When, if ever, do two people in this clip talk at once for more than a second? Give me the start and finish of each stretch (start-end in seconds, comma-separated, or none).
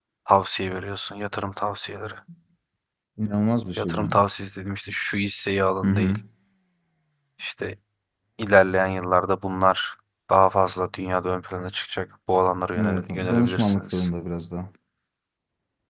12.8-14.1